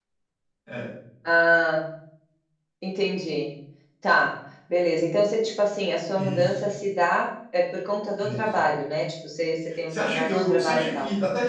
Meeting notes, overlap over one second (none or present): present